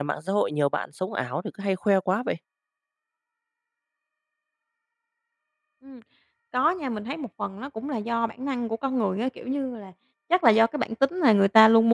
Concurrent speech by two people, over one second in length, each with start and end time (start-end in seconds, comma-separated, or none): none